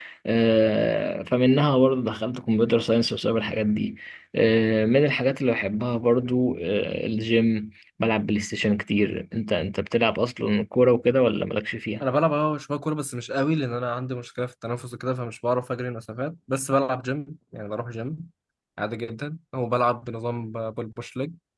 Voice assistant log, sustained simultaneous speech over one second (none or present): none